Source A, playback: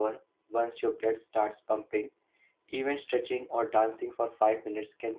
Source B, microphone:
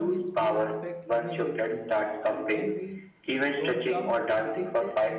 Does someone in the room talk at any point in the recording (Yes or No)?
Yes